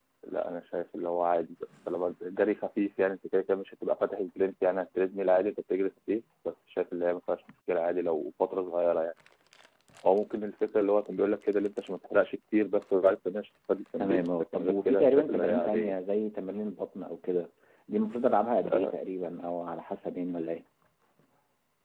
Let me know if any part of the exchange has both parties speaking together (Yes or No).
Yes